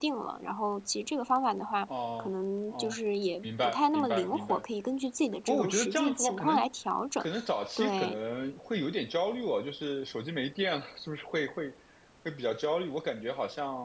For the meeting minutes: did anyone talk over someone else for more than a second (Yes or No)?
Yes